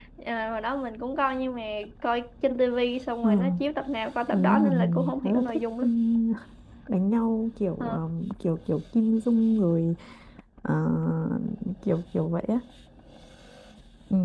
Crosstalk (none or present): present